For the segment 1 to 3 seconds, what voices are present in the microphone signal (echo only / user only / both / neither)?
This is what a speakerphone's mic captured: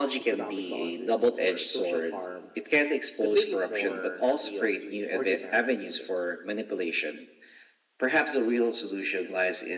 both